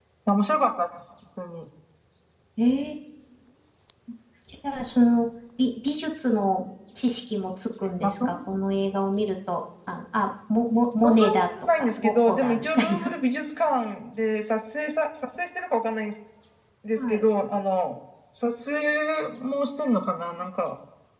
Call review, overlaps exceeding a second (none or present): present